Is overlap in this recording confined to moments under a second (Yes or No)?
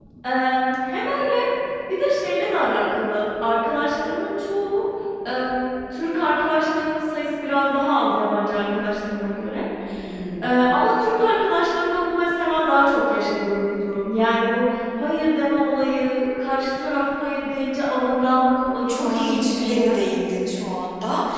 No